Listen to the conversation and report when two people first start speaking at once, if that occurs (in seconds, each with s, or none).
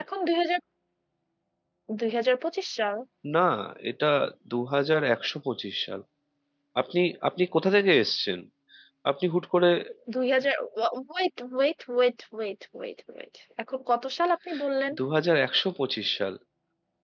none